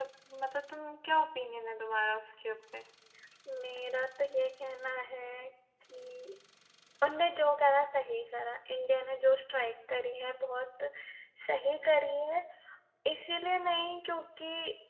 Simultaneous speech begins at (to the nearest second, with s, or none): none